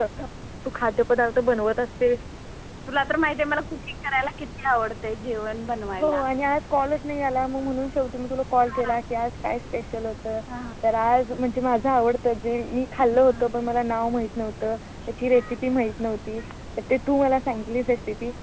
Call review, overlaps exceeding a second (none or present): none